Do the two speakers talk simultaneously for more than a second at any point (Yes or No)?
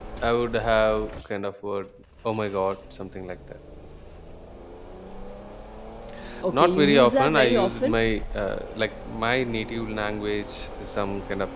Yes